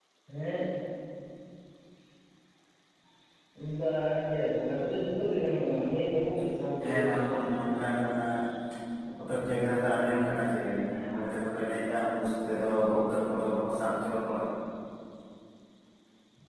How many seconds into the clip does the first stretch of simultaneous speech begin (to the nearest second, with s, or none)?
7 s